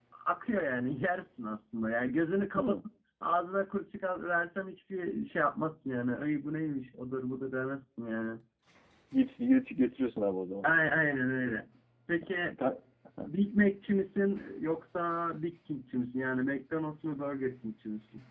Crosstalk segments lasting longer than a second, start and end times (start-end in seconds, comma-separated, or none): none